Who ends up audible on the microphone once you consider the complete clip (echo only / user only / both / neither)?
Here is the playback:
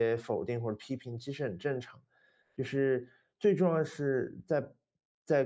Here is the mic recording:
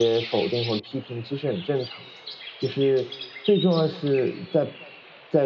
echo only